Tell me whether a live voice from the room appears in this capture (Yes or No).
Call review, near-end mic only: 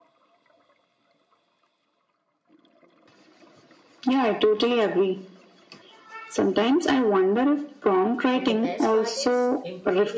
Yes